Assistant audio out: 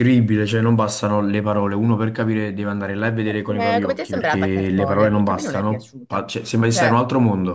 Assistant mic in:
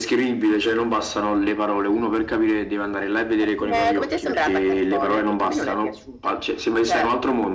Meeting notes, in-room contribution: none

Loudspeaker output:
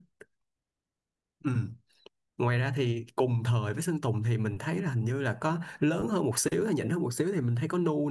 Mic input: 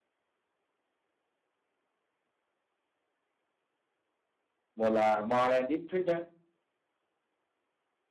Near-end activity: present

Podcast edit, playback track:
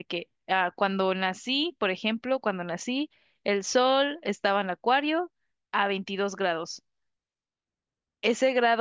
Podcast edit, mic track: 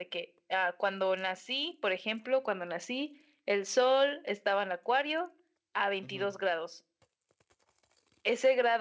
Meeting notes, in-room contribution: present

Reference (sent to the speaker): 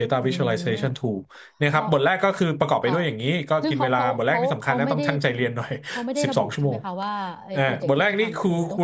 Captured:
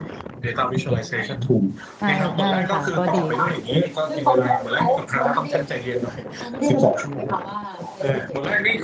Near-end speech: present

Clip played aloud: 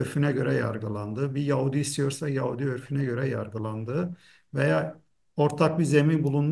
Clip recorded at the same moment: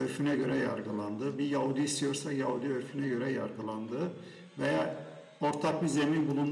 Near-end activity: none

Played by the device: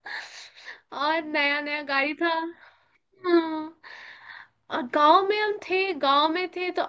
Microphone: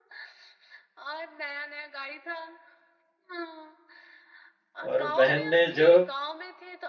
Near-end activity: present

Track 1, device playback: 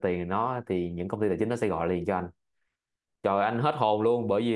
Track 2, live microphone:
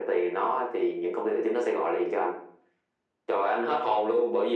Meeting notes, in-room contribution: none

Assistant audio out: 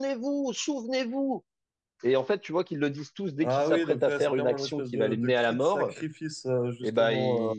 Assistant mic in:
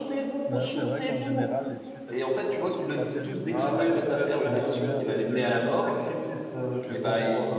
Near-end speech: present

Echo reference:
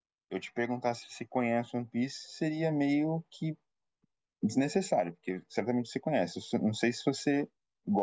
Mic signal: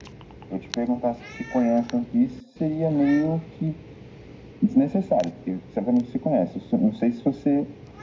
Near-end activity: none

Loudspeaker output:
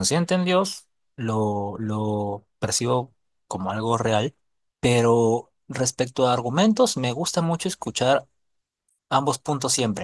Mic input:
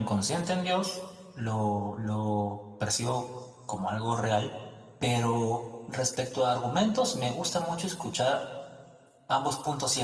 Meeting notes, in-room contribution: none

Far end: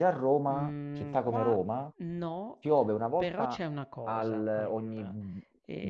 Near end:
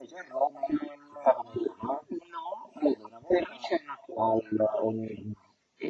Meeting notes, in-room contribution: none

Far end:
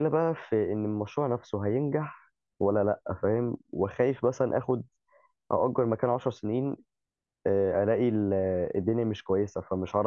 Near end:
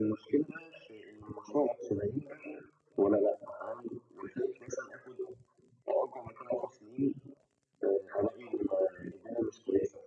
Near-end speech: none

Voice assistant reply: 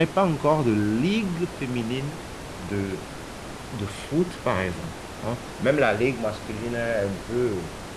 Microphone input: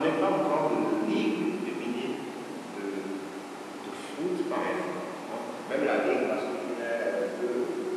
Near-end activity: none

